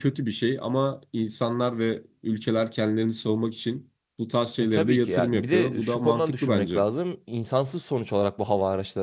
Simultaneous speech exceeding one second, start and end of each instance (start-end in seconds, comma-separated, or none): 4.6-6.8